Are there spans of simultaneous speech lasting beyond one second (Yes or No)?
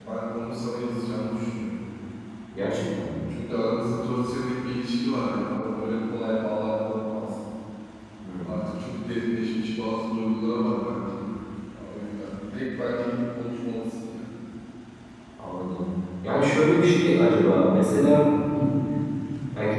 No